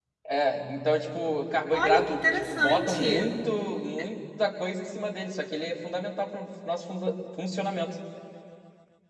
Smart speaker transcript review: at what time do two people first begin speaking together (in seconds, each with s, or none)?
1.7 s